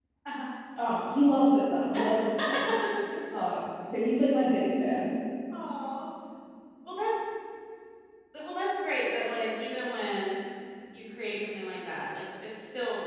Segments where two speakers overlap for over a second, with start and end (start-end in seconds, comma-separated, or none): none